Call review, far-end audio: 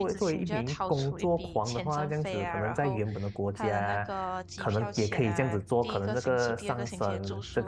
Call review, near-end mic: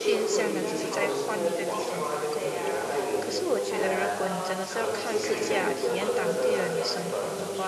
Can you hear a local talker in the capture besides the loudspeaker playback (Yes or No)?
Yes